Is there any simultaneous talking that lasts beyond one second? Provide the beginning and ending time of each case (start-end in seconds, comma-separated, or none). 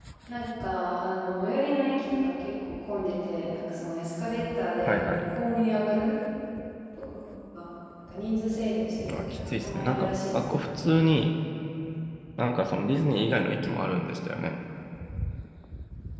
9.1-10.4